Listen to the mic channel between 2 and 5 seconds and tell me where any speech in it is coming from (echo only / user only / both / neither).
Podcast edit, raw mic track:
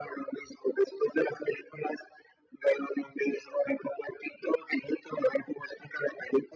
echo only